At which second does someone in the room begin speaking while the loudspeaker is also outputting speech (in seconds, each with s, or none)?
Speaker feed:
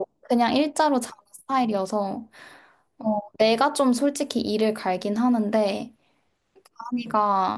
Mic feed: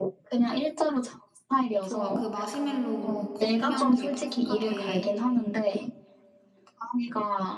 1.8 s